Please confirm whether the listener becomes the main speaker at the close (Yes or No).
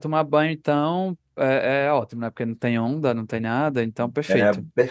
Yes